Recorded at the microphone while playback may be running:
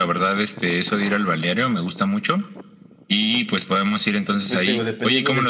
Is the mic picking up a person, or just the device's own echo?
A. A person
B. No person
A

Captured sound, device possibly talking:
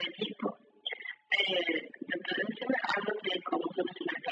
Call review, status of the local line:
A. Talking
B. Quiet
B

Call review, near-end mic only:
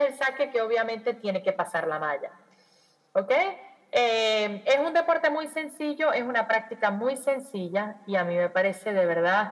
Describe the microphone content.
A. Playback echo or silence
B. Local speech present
A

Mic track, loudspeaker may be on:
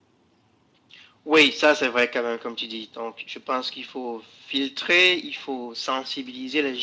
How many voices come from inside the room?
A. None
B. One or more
A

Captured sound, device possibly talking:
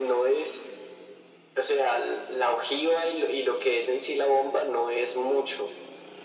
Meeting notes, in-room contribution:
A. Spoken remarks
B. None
B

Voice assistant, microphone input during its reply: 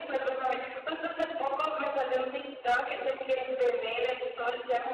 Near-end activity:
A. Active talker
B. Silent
B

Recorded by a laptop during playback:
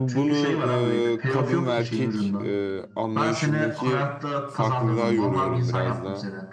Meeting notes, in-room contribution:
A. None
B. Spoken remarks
B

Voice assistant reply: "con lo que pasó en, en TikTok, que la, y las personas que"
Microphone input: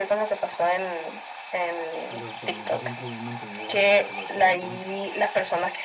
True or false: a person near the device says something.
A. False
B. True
B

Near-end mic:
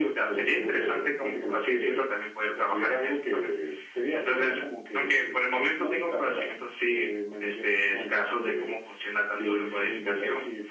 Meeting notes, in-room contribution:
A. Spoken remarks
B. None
B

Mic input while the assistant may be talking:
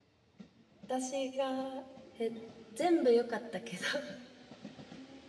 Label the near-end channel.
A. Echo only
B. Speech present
B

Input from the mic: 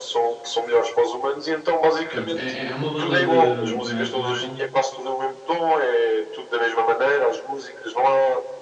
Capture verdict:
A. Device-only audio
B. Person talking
B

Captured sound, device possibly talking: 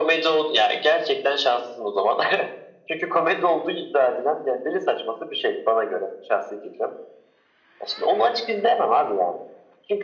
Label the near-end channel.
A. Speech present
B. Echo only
B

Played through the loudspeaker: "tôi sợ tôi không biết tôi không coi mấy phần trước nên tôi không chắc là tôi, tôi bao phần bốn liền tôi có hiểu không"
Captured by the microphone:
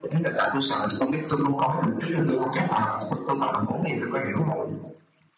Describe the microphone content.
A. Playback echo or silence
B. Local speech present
A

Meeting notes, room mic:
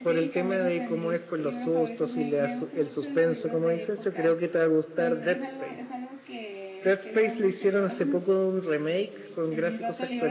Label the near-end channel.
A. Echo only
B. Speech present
B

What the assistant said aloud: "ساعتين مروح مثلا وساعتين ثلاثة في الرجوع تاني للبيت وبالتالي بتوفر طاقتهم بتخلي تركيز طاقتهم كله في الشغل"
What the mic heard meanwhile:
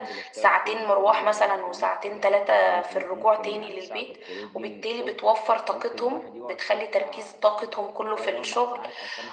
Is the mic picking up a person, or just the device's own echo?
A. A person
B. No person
A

